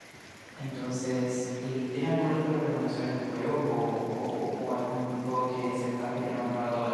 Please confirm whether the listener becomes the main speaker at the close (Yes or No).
Yes